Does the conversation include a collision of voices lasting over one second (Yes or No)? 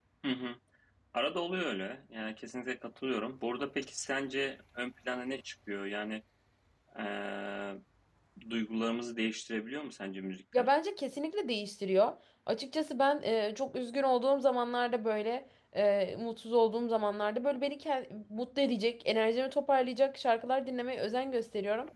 No